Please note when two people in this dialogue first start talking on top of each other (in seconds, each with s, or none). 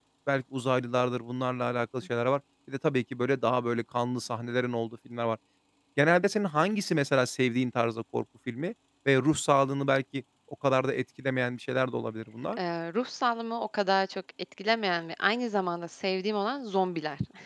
none